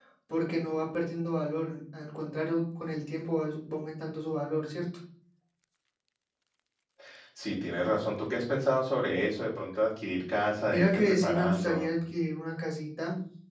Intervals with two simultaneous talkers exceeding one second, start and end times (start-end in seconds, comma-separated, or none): 10.7-11.9